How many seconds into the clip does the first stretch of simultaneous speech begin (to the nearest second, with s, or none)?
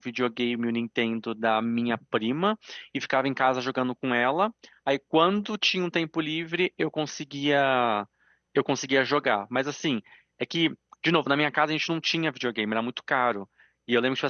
none